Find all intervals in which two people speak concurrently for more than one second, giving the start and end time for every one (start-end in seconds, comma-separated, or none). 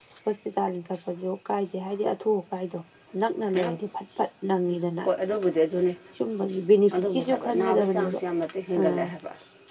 6.9-8.2